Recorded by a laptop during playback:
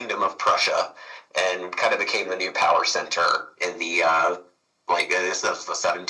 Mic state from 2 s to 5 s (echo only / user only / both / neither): echo only